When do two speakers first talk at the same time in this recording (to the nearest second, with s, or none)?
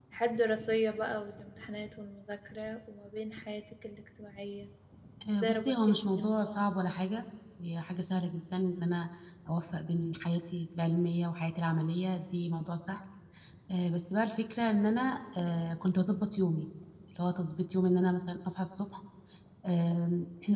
5 s